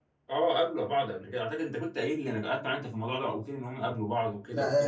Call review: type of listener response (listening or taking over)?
taking over